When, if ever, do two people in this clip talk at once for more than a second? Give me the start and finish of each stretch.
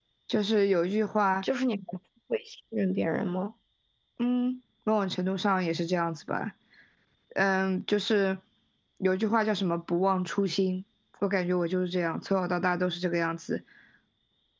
none

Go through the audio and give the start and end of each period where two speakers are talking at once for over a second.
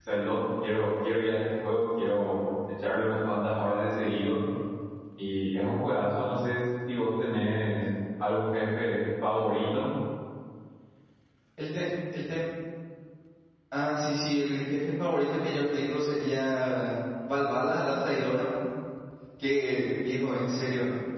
none

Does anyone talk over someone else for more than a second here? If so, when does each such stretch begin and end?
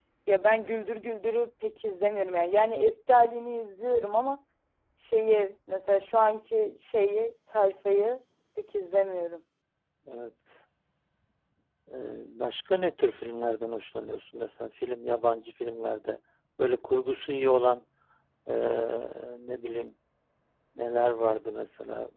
none

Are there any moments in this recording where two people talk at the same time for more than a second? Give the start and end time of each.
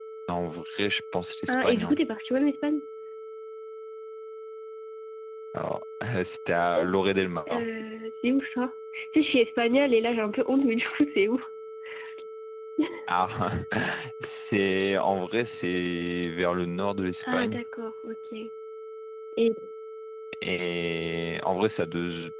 none

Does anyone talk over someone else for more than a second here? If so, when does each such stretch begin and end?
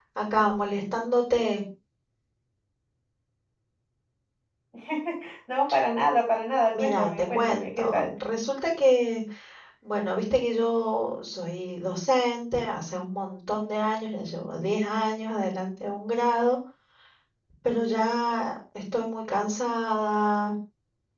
6.7-8.1

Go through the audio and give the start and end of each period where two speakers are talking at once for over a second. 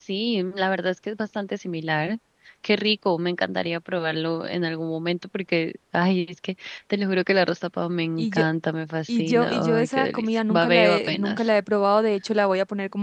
9.1-11.5

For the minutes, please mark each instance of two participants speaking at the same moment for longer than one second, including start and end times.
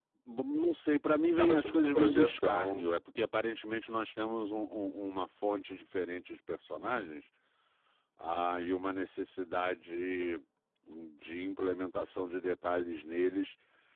1.4-2.8

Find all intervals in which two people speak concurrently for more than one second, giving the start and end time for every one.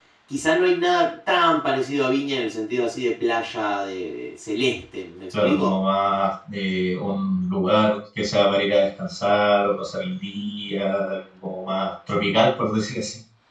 none

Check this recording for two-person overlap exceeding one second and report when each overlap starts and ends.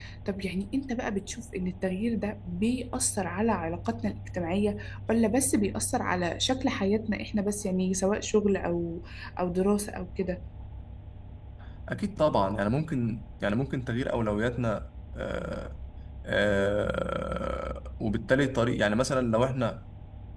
none

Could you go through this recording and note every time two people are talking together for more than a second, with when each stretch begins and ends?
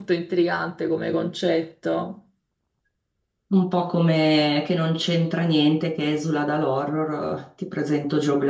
none

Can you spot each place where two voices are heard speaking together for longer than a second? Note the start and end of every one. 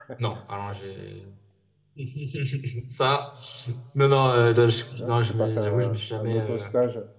5.0-6.7

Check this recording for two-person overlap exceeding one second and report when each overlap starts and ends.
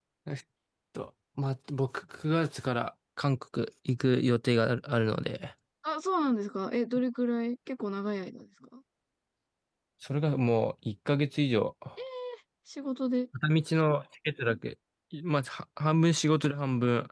none

